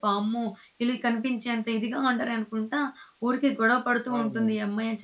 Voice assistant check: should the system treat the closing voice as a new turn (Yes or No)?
No